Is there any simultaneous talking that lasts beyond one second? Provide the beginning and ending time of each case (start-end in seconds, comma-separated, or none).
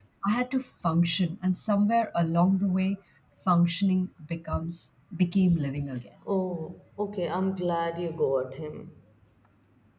none